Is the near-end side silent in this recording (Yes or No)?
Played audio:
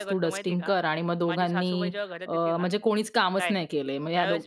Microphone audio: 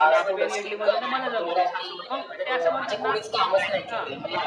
No